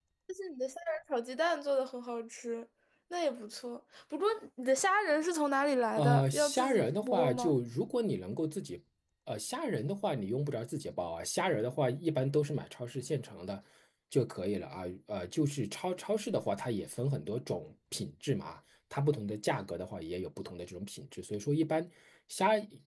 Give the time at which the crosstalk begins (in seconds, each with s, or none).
6.0 s